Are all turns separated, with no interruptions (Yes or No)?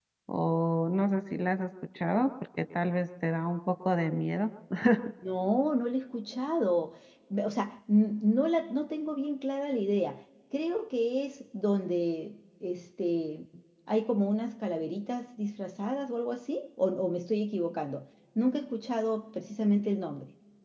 Yes